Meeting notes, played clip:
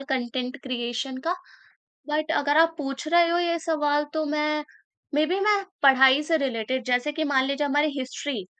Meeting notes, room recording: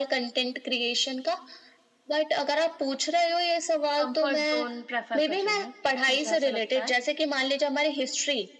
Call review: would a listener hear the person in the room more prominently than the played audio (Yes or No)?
No